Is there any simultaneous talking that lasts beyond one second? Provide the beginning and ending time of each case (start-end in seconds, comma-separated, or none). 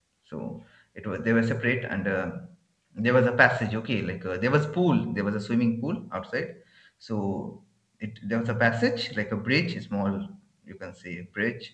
none